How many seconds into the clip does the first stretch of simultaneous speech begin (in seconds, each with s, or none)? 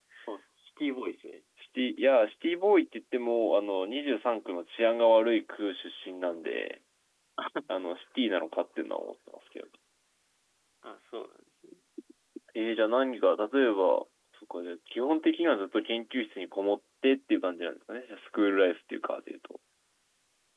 none